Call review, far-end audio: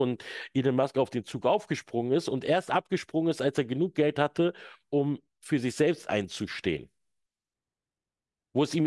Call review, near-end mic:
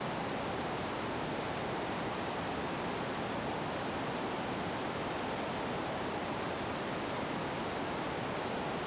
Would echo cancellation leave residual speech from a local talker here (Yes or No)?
No